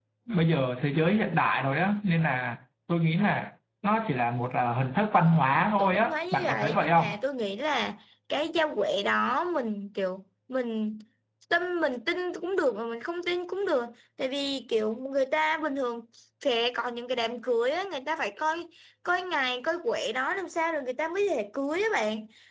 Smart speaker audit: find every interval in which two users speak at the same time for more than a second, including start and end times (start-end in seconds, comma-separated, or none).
5.8-7.1